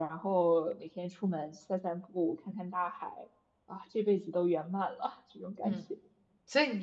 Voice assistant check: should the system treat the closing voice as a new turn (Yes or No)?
Yes